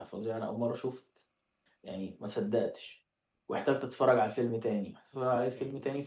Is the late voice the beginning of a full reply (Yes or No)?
No